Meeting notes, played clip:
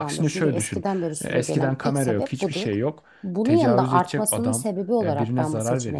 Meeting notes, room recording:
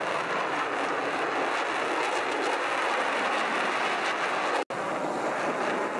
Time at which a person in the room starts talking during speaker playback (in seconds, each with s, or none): none